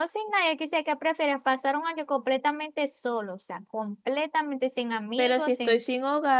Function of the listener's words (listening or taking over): taking over